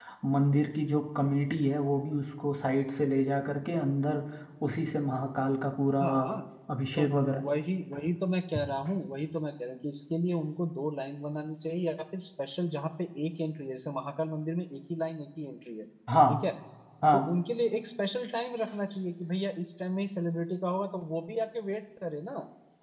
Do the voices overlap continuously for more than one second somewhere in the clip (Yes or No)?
No